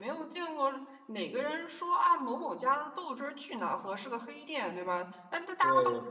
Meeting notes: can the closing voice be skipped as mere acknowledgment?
Yes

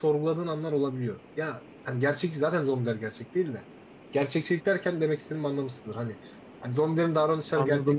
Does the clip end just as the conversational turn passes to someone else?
No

